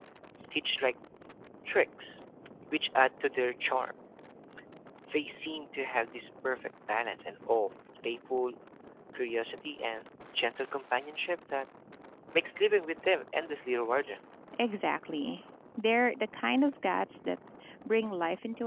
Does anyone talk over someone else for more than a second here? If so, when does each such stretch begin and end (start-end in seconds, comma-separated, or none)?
none